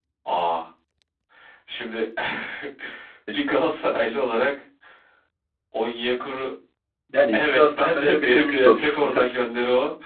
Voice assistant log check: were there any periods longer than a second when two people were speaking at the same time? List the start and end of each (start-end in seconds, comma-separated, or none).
7.3-9.4